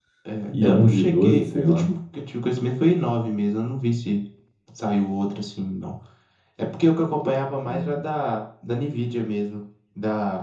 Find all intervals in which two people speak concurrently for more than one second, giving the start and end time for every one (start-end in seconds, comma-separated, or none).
0.6-1.9